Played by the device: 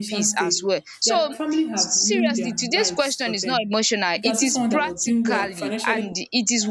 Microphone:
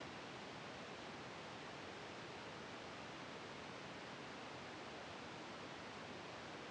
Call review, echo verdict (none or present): none